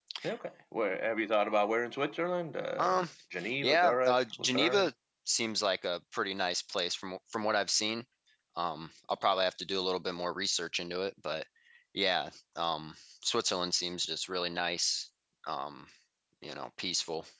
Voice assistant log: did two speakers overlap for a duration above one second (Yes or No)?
Yes